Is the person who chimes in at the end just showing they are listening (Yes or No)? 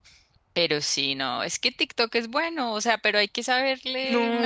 No